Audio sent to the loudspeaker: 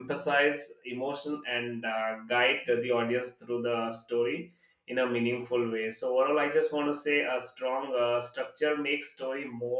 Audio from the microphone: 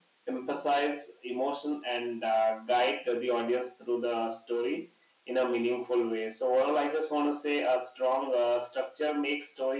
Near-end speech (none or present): none